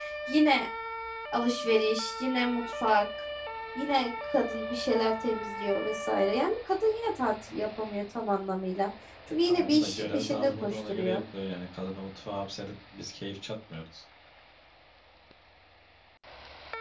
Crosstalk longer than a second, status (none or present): present